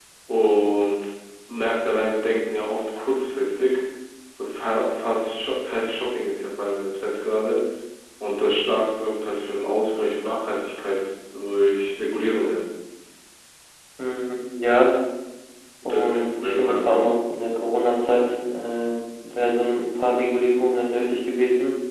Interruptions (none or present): present